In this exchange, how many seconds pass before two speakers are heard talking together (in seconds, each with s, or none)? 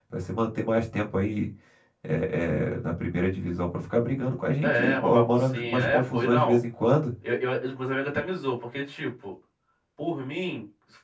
4.6 s